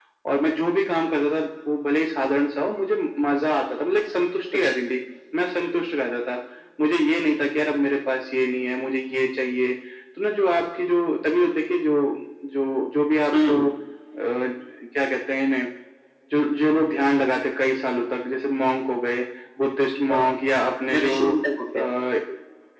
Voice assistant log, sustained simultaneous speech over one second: none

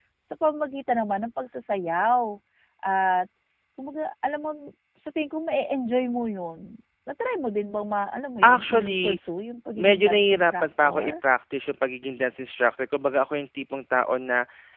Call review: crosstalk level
present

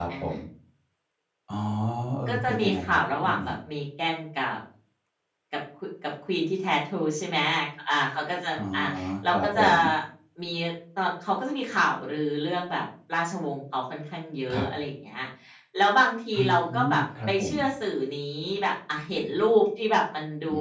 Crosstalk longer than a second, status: present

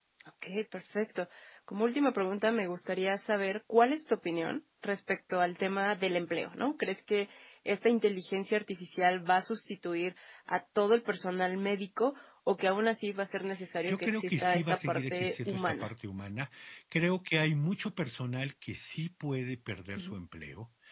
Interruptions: present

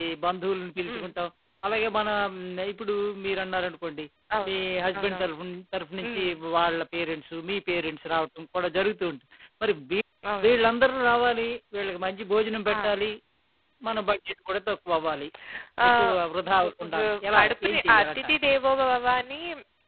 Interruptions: present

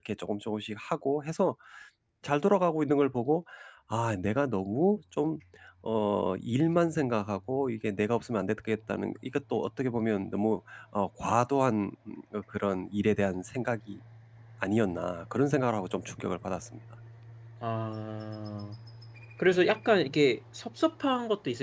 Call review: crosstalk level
none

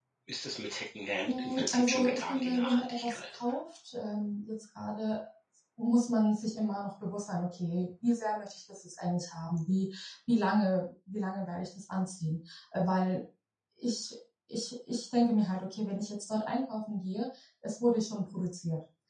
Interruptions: present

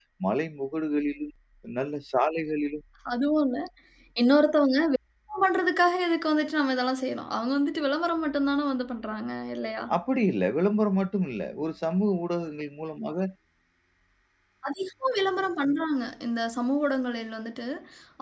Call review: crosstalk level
none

